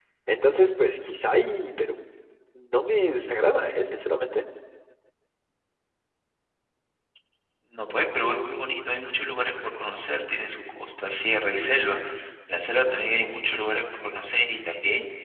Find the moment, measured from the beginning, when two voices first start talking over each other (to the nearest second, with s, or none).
none